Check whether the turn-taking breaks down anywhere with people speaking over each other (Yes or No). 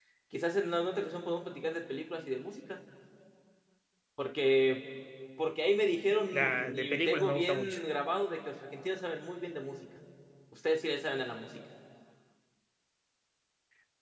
Yes